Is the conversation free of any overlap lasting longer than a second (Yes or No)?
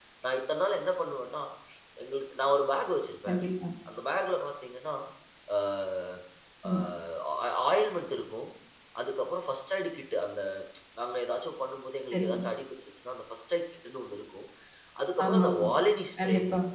Yes